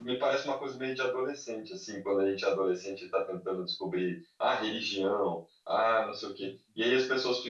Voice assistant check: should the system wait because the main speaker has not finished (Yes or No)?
Yes